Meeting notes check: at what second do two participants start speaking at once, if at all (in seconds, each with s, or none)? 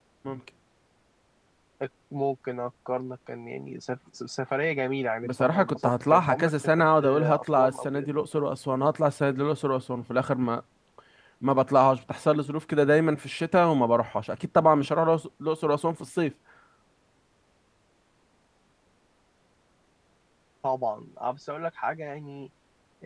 5.2 s